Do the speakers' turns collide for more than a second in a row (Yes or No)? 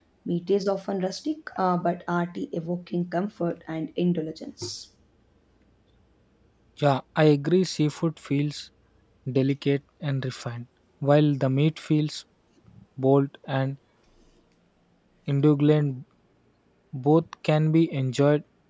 No